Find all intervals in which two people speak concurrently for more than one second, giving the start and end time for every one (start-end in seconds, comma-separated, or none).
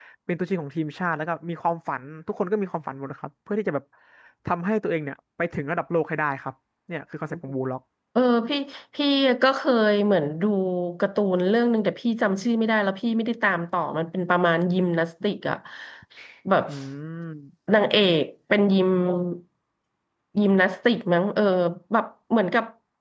none